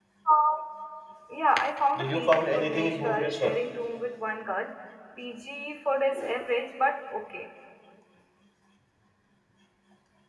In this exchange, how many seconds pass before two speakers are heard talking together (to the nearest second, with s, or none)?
2 s